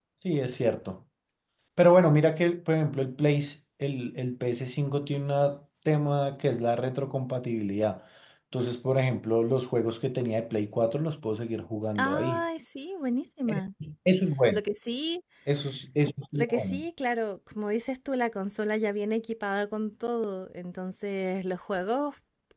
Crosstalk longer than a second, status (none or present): none